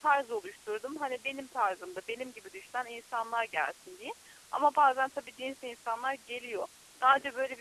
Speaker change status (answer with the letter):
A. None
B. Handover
A